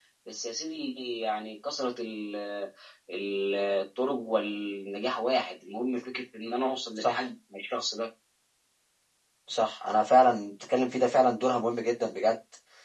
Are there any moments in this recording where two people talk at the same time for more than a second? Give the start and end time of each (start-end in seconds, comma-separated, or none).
none